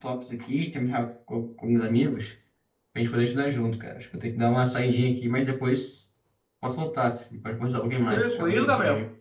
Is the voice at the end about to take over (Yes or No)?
Yes